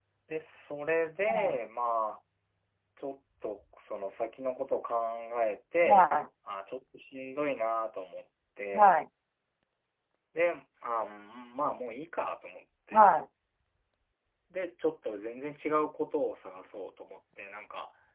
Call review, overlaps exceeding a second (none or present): none